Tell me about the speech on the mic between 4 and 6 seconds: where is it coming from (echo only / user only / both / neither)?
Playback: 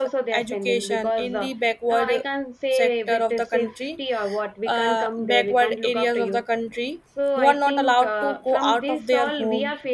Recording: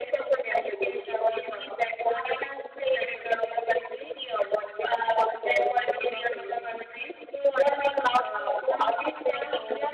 echo only